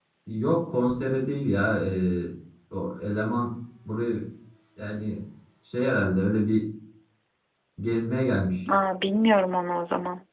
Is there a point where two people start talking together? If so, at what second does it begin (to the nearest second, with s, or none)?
none